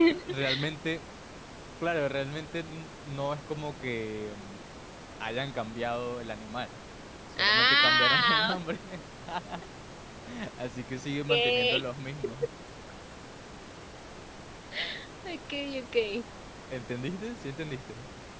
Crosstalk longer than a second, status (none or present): present